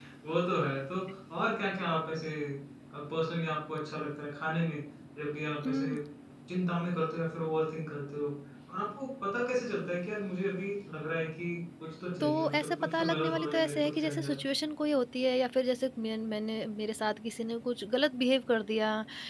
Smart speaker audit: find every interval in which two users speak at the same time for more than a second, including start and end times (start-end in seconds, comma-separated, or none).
12.2-14.3